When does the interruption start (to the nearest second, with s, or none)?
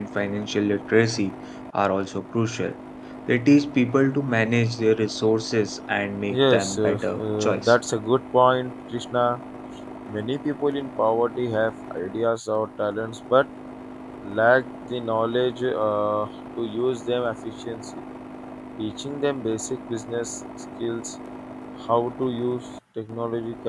6 s